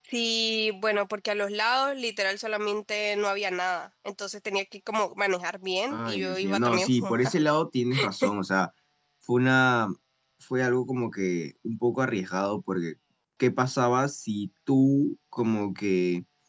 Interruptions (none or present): present